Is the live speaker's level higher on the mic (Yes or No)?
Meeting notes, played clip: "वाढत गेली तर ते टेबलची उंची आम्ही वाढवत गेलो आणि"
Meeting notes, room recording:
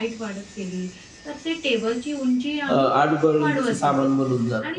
Yes